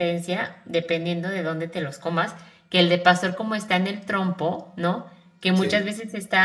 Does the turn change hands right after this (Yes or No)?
No